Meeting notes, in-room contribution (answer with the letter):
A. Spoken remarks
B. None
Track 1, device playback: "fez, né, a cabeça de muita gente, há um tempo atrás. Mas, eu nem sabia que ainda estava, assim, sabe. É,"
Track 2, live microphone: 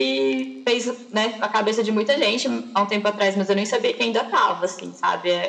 B